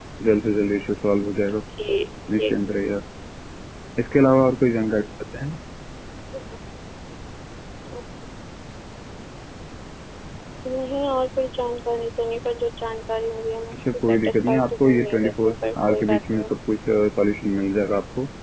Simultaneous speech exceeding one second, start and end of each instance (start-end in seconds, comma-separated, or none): 13.7-16.5